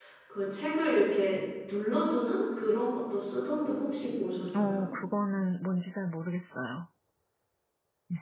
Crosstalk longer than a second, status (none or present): none